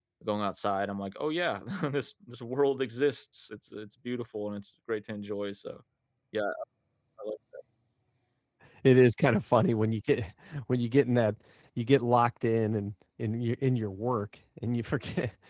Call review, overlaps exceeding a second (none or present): none